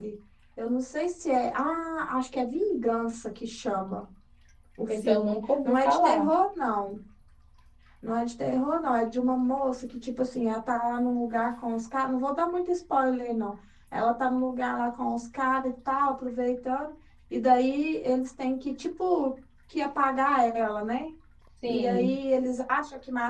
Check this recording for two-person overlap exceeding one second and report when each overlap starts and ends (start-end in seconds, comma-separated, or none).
4.9-6.3